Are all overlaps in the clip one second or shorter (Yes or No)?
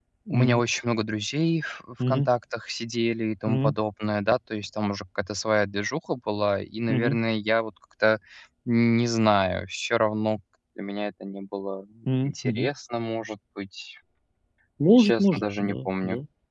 No